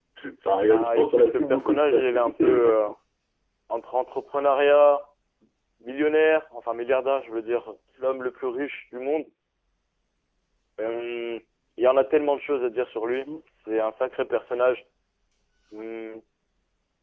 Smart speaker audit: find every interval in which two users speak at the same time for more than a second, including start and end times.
0.7-2.9

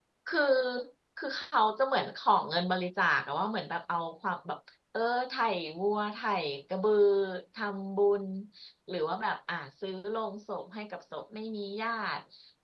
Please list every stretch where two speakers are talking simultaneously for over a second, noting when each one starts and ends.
none

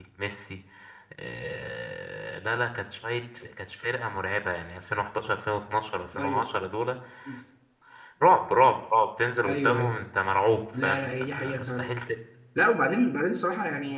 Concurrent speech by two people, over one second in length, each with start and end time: 10.8-12.0

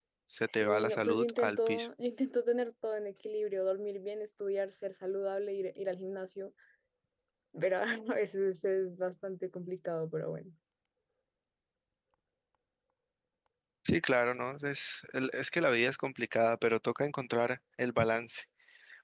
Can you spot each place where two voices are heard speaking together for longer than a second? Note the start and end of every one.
0.5-1.9

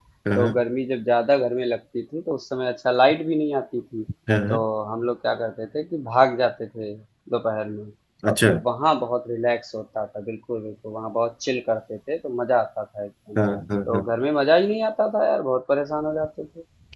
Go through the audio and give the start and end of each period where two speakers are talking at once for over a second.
none

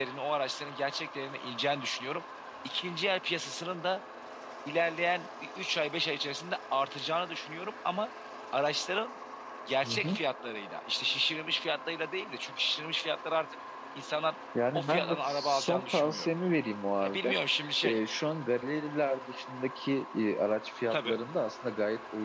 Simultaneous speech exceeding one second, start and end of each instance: 14.7-16.3

